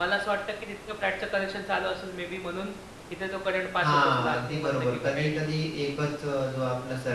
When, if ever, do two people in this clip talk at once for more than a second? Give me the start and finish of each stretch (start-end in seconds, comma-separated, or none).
3.8-5.7